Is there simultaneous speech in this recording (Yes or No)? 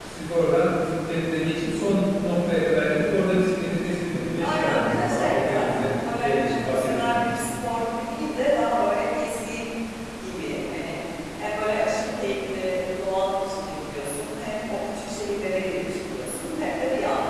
Yes